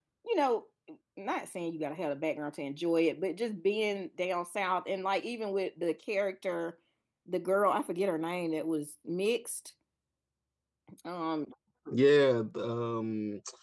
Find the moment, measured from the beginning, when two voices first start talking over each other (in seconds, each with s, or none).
none